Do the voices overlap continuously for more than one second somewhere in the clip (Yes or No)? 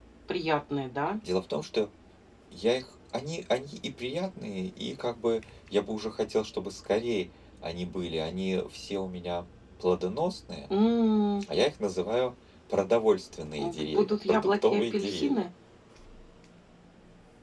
Yes